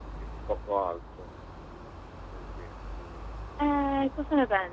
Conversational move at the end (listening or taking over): taking over